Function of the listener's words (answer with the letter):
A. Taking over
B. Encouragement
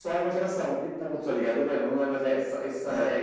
B